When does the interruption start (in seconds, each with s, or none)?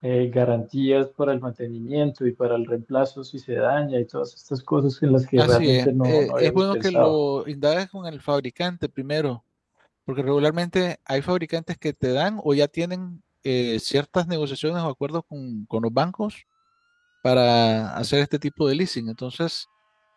5.4 s